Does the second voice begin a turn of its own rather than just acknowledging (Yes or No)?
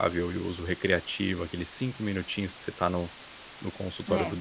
No